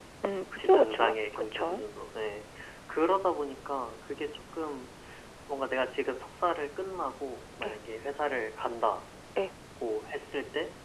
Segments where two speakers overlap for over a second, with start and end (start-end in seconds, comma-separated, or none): 0.6-1.8